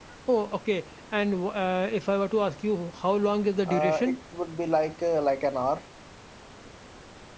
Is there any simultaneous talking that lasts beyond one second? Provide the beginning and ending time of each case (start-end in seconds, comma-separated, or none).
none